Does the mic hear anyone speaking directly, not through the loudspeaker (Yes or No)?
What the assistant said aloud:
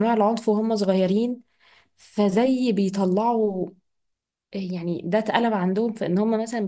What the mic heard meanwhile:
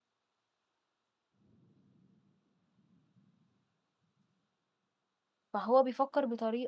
Yes